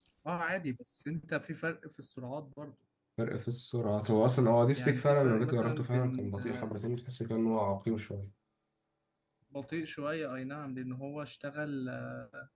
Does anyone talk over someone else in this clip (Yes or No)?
Yes